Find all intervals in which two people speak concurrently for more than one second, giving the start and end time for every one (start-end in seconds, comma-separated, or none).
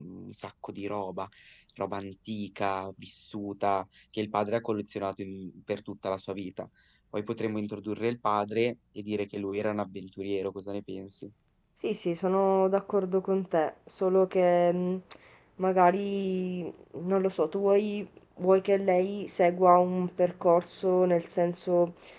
none